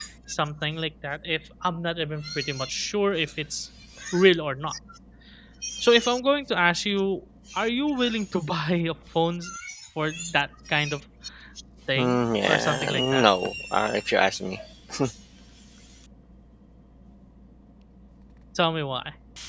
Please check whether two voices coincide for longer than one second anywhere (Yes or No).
Yes